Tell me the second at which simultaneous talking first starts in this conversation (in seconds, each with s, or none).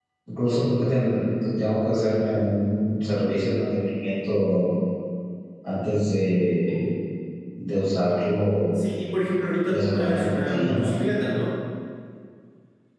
9.7 s